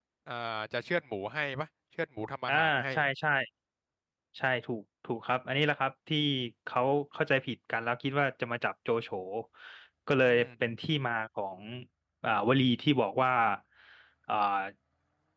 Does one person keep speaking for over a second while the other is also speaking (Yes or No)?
No